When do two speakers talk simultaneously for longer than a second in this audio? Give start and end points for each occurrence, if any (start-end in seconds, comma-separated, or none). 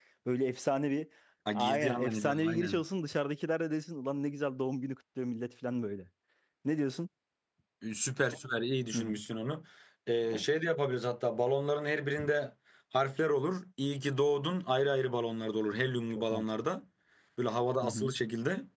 1.6-2.8